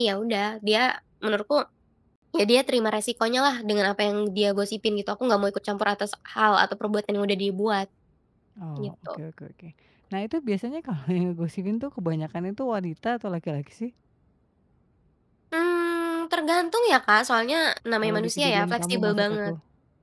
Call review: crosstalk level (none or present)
present